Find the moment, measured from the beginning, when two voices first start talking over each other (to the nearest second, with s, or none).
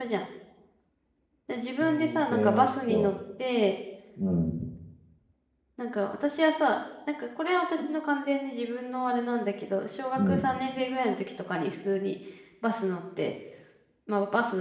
2 s